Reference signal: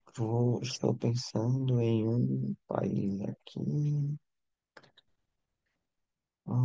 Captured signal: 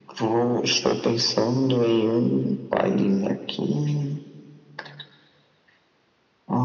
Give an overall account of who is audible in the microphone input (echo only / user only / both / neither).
echo only